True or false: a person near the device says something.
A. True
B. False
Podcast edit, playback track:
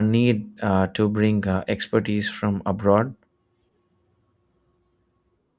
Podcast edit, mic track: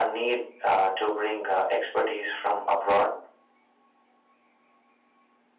B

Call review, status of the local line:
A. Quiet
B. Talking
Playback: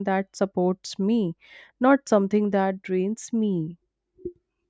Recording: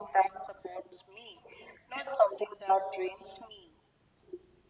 A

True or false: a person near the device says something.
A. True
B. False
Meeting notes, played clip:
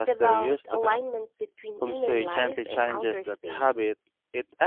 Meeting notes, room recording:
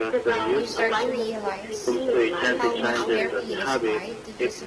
A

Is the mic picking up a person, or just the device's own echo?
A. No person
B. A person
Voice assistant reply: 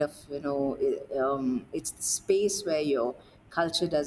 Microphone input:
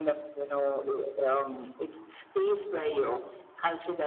A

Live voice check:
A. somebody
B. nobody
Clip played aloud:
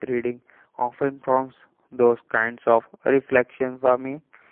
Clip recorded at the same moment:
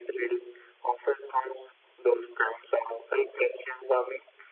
B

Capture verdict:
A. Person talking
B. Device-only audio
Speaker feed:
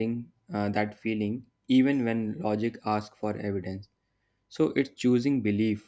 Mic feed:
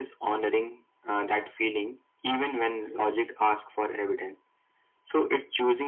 B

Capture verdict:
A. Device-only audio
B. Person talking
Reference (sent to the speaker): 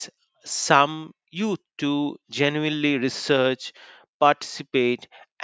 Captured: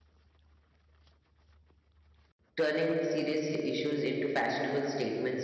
B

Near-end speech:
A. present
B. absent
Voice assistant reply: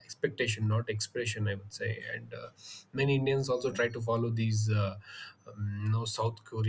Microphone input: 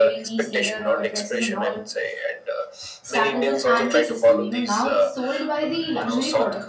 A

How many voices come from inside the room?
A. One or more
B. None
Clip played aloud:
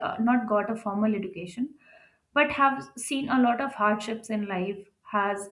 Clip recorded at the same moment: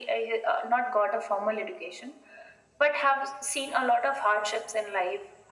B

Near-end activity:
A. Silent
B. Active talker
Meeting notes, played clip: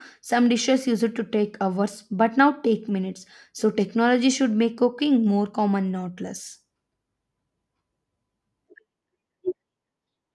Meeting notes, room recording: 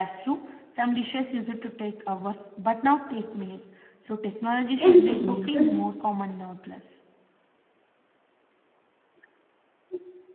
B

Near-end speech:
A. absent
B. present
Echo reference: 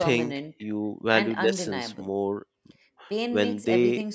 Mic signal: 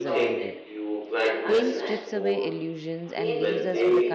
B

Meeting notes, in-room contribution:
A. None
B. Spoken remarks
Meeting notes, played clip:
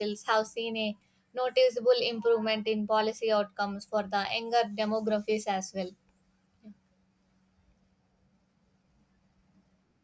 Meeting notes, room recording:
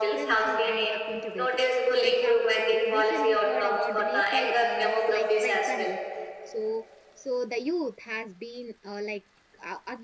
B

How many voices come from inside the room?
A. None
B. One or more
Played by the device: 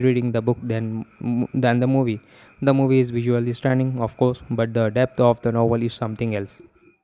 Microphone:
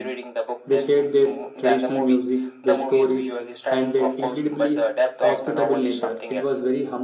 B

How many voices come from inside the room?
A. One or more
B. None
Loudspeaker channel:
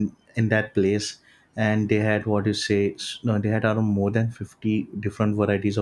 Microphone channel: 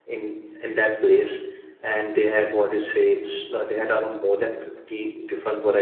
B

